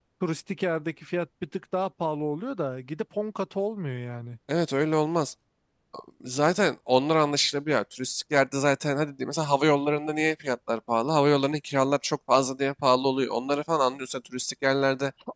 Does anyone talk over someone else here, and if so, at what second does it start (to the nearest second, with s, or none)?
none